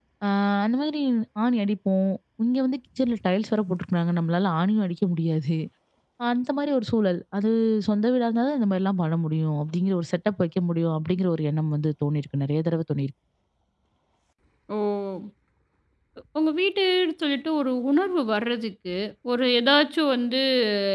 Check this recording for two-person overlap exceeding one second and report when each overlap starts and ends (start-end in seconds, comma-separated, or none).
none